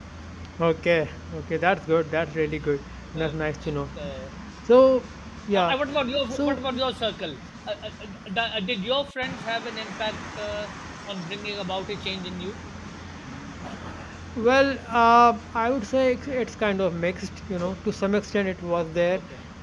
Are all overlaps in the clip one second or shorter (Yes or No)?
Yes